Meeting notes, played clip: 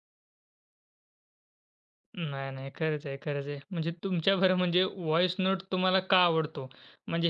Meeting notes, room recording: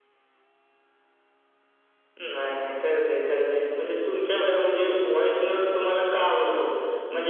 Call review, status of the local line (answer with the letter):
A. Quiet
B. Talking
A